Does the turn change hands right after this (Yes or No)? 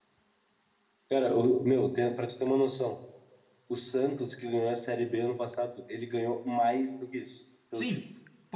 Yes